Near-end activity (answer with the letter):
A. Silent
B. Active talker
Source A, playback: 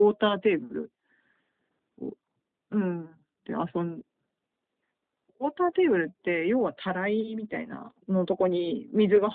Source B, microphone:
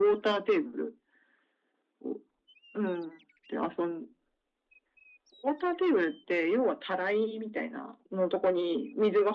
A